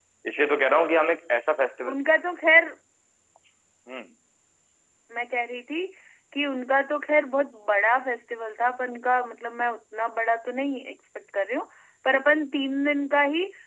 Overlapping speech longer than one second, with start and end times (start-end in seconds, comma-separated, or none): none